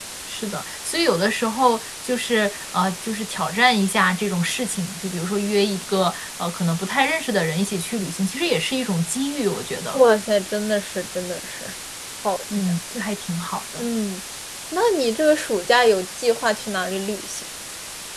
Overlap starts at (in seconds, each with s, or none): none